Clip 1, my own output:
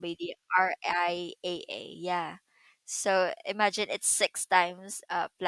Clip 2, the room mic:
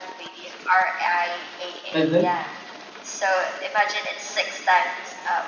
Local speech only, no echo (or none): Mhm.